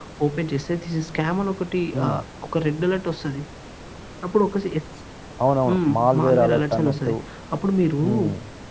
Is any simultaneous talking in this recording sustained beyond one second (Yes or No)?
Yes